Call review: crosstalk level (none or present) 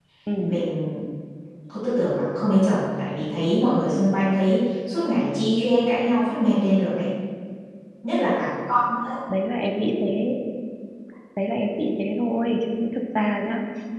none